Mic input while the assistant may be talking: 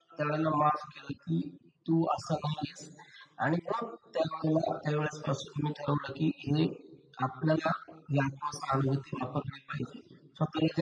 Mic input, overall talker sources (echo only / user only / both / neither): echo only